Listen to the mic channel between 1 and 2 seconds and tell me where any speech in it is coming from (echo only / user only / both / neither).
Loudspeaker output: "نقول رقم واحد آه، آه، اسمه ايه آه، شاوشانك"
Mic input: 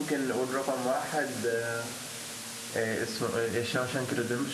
echo only